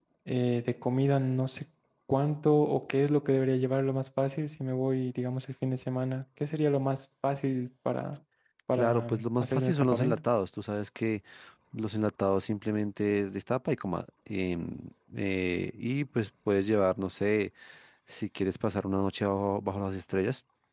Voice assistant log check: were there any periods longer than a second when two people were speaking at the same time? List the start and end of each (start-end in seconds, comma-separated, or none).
8.7-10.2